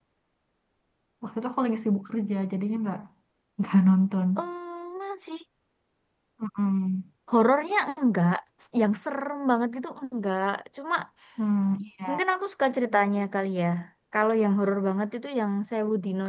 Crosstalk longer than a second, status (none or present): none